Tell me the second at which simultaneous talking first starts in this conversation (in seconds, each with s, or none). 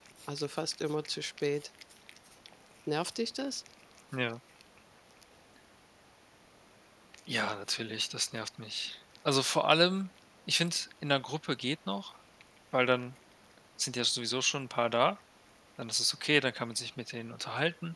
none